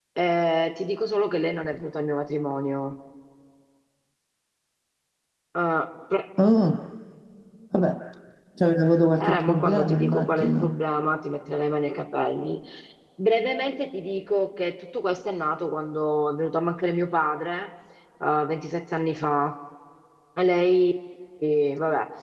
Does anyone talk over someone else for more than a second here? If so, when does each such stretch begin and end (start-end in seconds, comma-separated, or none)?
9.2-10.7